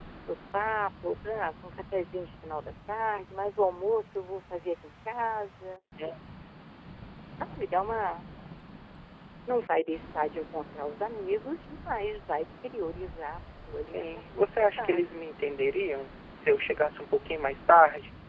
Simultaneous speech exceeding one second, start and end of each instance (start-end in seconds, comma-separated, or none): 13.8-15.0